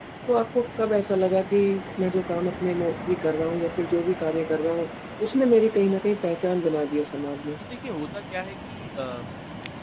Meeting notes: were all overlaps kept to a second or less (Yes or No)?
Yes